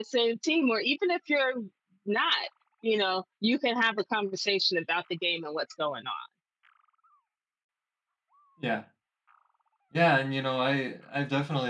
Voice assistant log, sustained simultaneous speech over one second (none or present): none